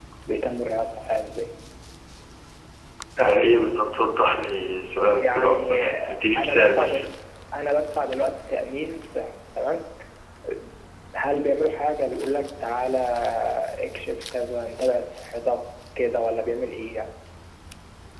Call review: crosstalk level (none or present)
present